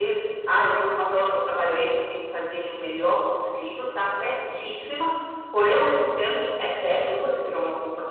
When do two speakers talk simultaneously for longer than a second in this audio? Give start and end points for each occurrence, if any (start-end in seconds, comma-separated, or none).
none